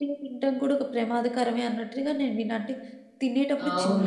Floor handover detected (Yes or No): No